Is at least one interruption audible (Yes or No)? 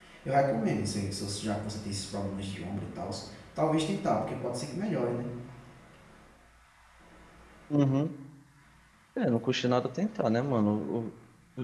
No